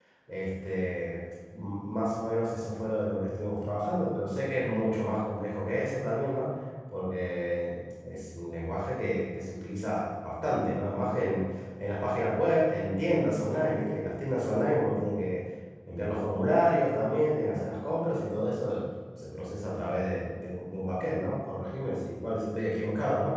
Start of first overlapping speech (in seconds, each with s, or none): none